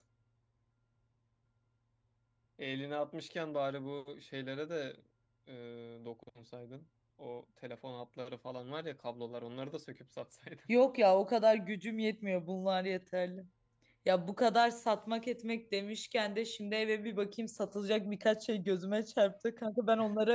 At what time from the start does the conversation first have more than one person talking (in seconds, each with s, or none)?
none